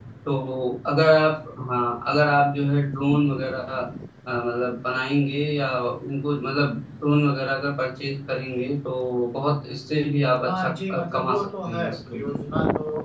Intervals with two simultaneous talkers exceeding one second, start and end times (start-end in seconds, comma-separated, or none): 10.4-12.4